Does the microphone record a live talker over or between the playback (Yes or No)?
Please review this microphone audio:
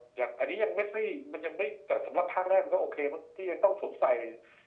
No